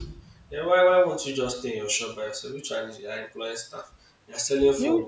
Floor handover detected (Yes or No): No